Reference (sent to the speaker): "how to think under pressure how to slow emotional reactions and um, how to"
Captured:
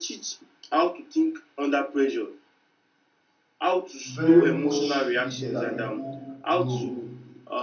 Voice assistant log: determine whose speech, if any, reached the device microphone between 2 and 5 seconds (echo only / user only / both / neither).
both